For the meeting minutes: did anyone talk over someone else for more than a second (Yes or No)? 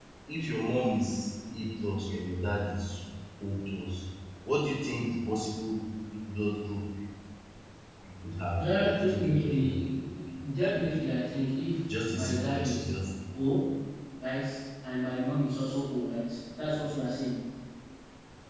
Yes